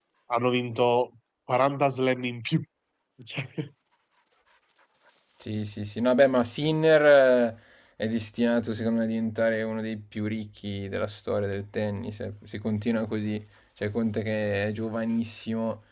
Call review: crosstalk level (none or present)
none